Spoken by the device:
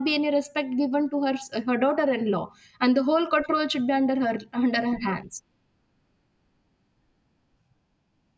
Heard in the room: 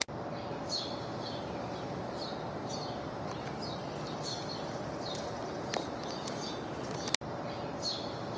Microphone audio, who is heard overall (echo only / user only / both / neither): neither